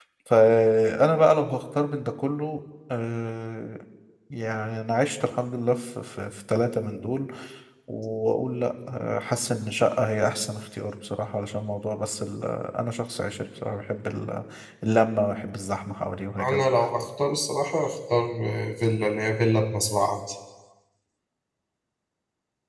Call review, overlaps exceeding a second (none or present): none